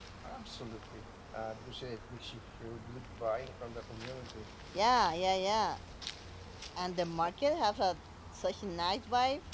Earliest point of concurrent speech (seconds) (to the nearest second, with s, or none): none